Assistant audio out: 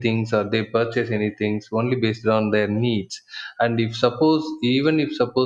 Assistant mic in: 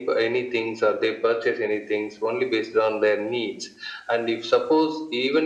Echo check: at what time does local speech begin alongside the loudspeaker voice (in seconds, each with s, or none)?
none